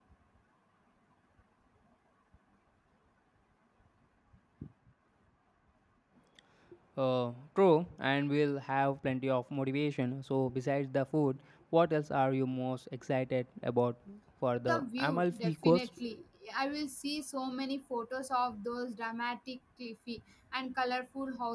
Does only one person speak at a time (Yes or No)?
No